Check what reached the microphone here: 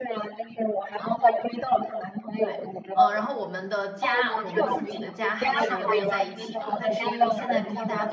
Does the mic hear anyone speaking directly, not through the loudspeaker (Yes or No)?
Yes